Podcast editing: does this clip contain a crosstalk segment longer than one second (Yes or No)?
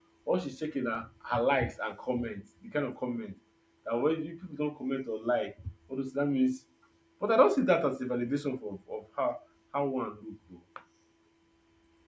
No